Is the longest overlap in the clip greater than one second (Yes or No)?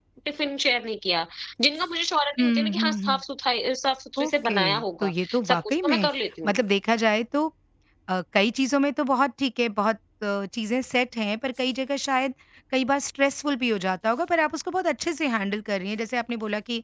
Yes